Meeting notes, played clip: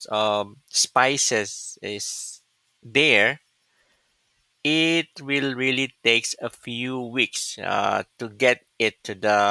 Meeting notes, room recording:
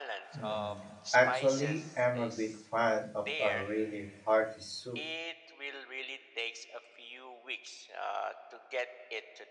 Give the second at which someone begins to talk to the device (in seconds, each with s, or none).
0.3 s